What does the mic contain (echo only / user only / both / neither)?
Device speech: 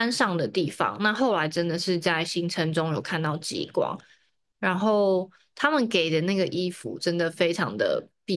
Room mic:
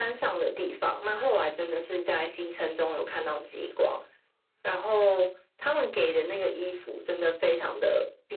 echo only